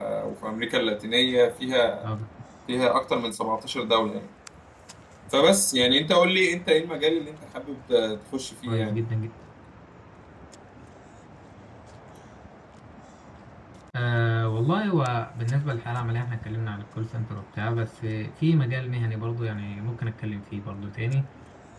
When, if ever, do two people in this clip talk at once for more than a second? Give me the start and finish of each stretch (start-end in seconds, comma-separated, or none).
none